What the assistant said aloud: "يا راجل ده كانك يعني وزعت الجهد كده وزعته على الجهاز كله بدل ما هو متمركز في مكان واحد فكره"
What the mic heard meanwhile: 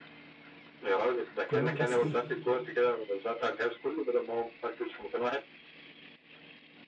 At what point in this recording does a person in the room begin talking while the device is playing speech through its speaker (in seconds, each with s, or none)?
1.4 s